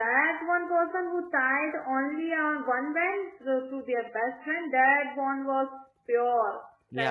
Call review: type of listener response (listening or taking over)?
taking over